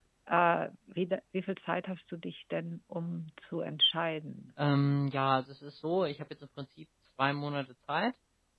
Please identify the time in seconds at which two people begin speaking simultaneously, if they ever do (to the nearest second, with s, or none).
none